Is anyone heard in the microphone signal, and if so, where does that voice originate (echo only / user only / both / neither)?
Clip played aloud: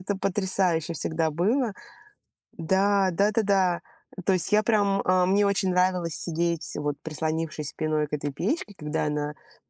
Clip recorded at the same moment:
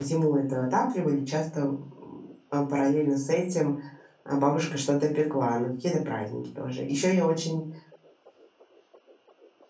user only